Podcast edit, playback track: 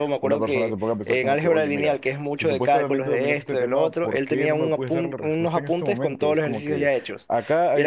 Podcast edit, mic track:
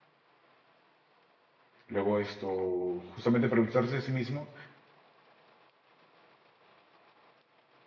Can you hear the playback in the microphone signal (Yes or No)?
No